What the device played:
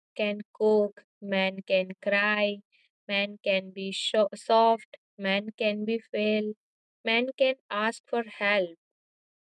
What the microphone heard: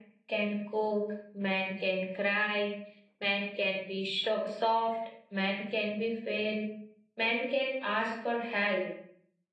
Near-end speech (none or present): none